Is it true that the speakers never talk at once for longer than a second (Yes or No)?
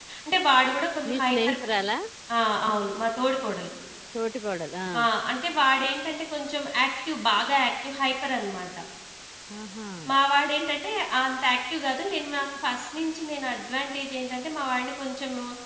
Yes